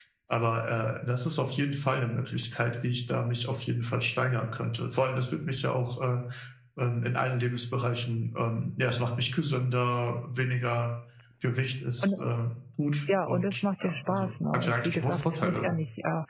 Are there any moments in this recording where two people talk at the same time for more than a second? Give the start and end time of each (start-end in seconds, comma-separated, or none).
13.2-15.7